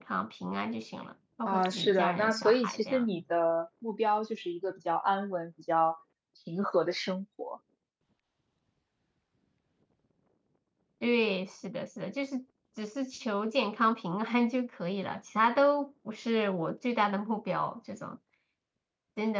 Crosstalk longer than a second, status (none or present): present